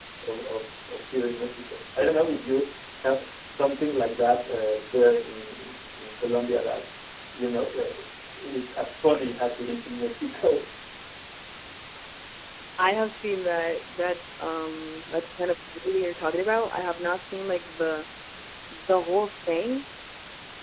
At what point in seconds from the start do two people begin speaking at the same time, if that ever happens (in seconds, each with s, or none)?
none